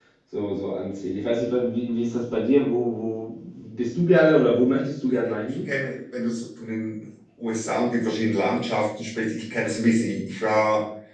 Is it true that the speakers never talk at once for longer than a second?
Yes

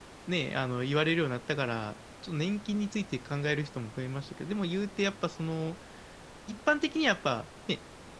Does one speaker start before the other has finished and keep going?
No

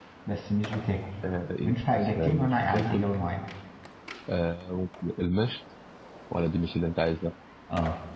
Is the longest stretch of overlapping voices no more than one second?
No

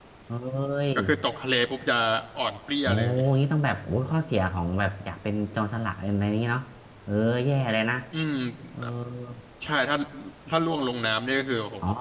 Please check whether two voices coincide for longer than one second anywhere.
No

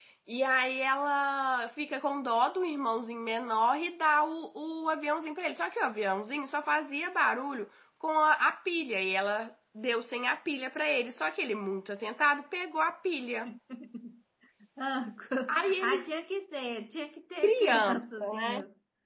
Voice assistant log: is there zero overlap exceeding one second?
No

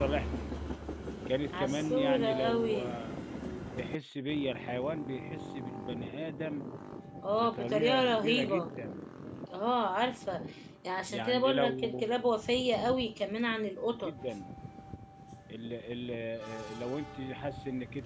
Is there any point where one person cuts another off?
Yes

